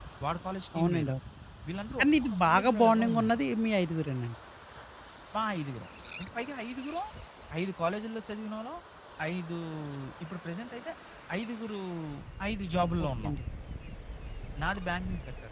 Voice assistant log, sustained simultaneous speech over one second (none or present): present